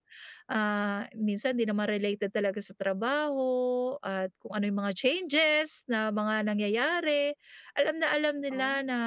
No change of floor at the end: Yes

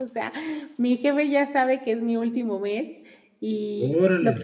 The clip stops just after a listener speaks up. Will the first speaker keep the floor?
Yes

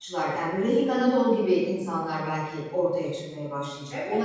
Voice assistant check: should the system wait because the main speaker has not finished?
No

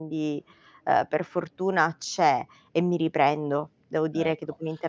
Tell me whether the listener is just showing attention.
Yes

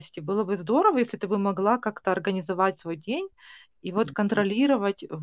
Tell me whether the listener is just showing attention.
Yes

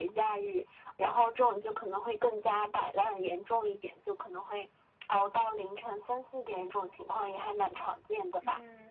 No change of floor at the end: No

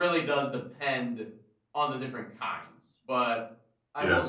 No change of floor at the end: Yes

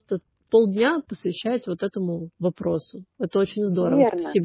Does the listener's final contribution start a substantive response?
Yes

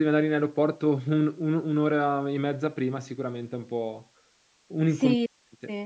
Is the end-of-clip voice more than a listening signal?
Yes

